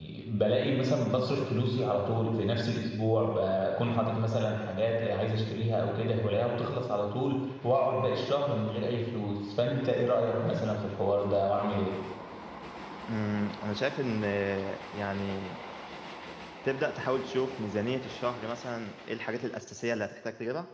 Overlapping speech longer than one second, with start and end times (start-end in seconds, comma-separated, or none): none